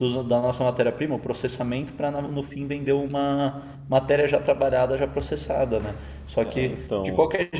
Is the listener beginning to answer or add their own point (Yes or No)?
No